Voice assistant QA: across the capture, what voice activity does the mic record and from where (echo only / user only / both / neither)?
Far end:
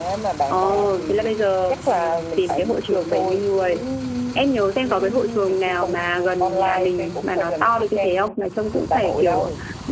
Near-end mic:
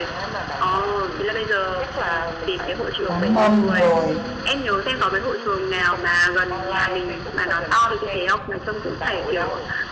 both